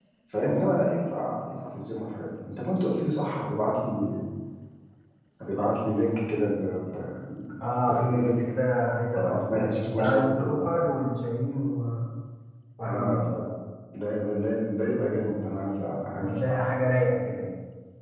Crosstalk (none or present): present